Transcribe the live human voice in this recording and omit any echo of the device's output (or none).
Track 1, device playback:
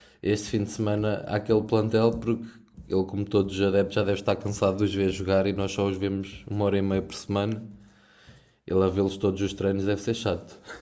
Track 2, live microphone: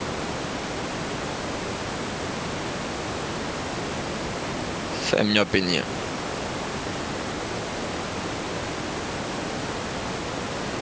Essa É a minha opinião.